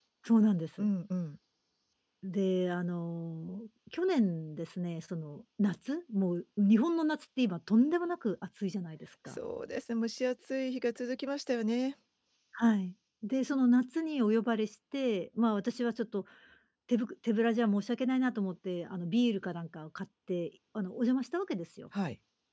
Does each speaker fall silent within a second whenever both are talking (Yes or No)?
Yes